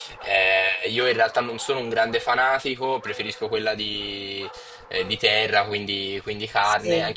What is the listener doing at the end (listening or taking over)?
listening